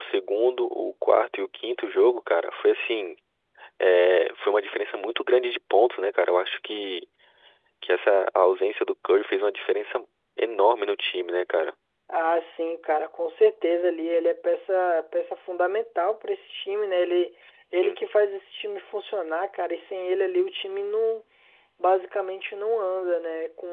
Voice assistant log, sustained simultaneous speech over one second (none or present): none